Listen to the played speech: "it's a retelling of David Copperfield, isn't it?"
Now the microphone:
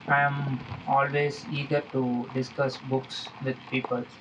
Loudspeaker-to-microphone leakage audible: No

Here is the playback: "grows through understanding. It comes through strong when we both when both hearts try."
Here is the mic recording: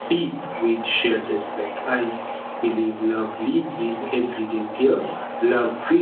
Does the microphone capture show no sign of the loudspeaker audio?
Yes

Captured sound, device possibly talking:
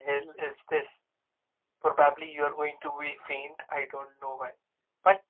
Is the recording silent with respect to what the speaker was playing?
No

